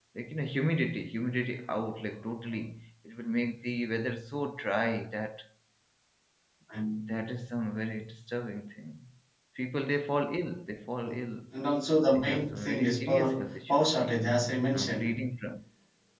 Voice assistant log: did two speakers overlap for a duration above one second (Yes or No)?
Yes